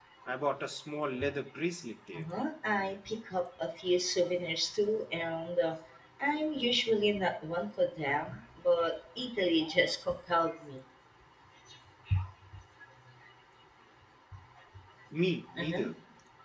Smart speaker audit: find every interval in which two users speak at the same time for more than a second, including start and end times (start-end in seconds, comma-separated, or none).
none